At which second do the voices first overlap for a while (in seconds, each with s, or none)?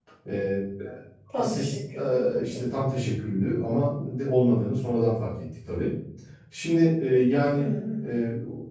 1.4 s